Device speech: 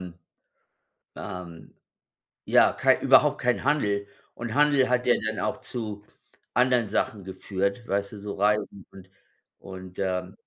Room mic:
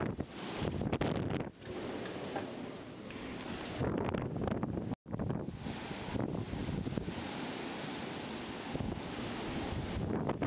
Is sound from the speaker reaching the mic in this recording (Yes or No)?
No